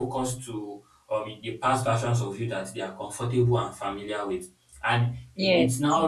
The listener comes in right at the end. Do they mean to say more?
No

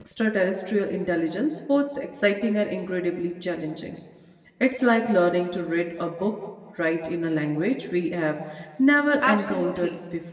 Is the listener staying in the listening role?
No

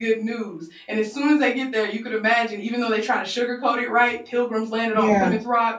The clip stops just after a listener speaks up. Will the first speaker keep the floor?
Yes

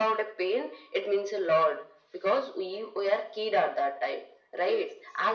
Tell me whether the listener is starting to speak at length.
No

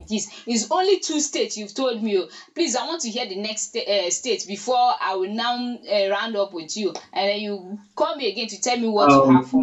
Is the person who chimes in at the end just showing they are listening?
No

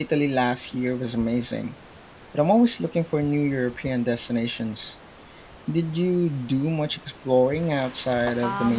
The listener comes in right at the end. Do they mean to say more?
Yes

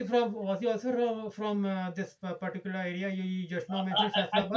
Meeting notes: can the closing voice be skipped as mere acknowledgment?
No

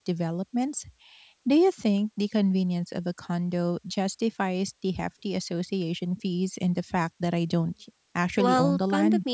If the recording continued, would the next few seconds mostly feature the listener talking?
Yes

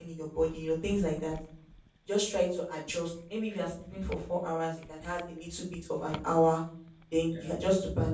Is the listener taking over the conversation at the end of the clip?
No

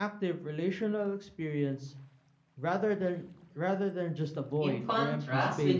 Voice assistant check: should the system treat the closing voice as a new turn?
Yes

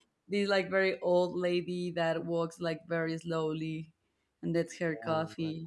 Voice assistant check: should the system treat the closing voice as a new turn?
Yes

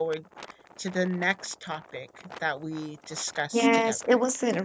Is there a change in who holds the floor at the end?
Yes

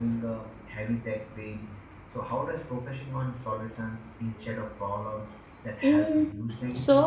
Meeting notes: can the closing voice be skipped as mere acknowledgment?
No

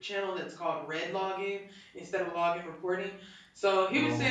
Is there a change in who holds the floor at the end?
No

